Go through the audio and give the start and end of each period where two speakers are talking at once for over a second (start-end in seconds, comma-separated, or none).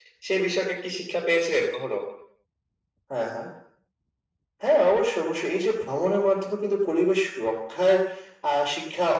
none